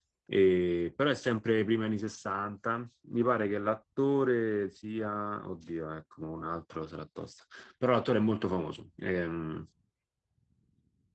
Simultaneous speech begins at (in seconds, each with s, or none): none